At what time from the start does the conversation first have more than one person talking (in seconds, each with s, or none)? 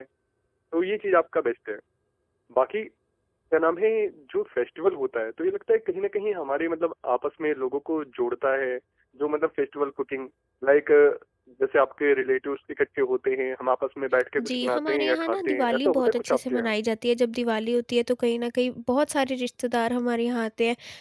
14.4 s